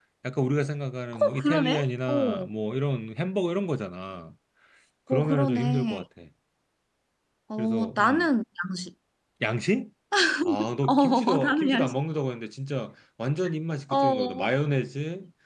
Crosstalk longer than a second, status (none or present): present